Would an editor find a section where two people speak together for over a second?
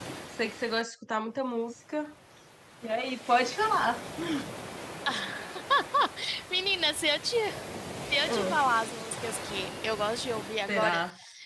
No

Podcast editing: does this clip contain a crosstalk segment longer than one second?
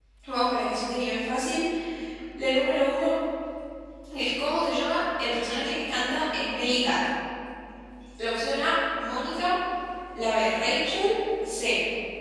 No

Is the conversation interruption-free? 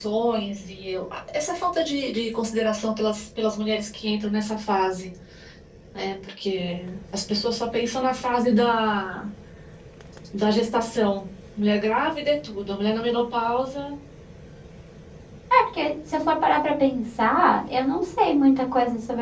Yes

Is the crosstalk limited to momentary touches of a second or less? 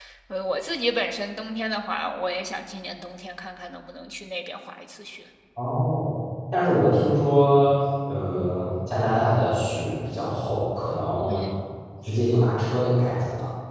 Yes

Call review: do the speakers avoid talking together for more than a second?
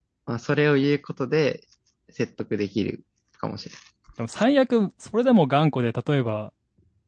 Yes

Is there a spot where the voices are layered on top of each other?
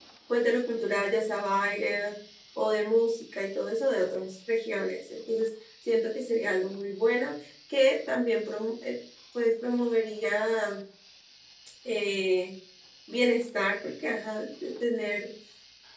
No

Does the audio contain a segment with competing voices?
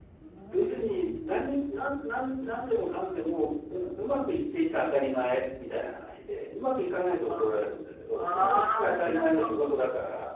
Yes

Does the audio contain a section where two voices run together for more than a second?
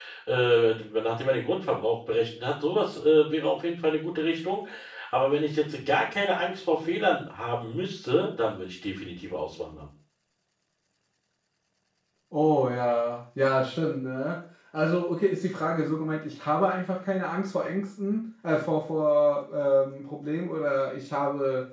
No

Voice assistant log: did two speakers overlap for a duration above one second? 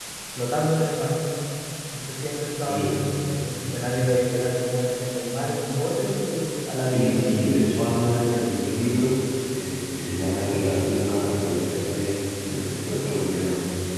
No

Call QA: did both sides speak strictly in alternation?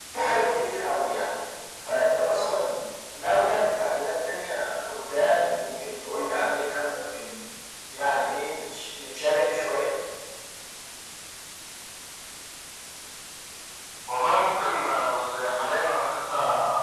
Yes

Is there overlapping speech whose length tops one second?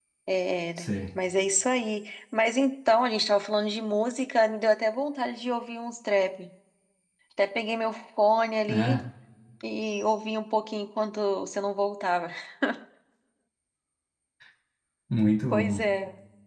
No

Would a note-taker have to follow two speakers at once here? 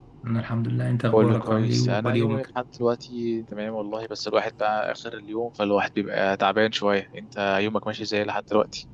Yes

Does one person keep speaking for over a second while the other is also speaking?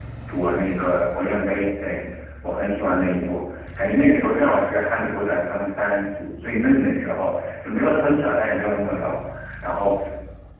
No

